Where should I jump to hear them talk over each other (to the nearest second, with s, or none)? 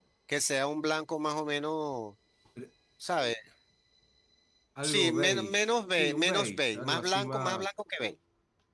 5 s